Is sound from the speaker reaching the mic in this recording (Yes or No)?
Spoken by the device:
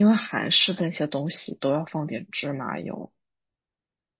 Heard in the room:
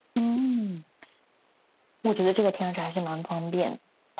No